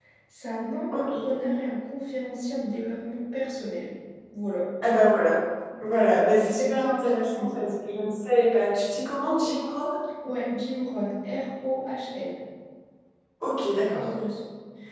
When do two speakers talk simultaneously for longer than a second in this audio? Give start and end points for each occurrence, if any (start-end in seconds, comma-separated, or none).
6.0-7.6